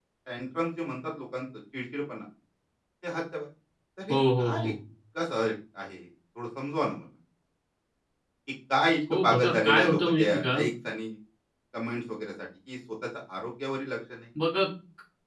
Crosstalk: present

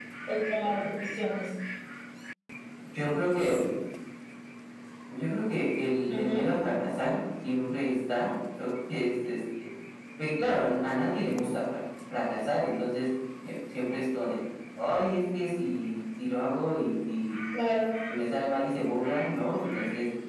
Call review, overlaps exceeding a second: none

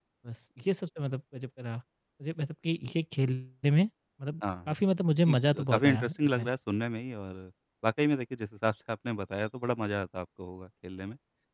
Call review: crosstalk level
present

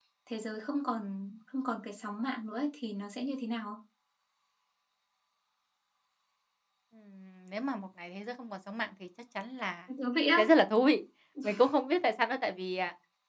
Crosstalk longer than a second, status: none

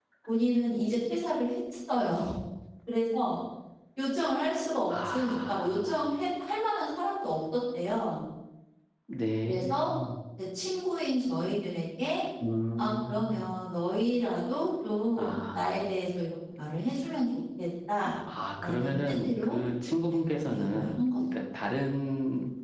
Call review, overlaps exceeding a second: present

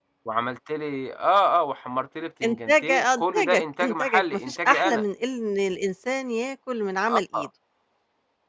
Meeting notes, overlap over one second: present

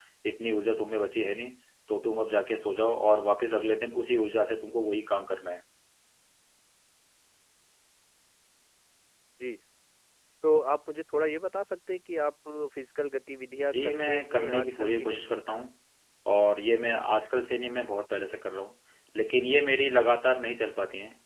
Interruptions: present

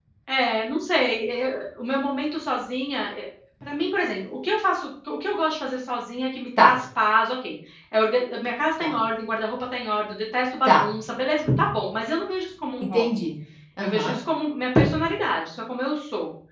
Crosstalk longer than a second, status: none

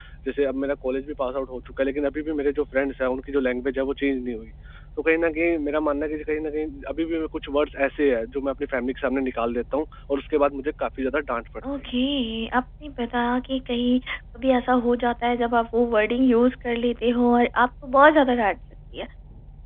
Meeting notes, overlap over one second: none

